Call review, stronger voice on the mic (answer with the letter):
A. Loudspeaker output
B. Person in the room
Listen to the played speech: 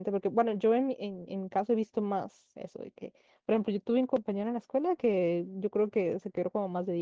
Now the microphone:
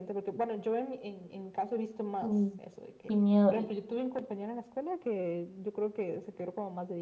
B